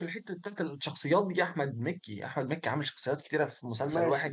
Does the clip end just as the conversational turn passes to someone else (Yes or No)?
Yes